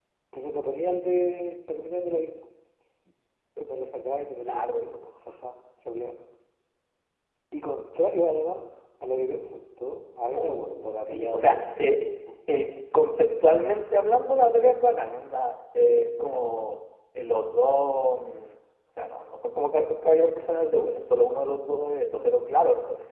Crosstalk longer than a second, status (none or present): present